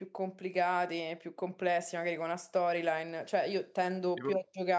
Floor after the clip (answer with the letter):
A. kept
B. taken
A